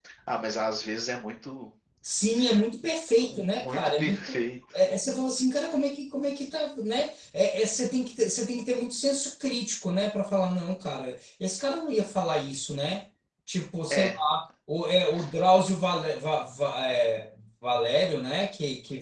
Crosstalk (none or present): present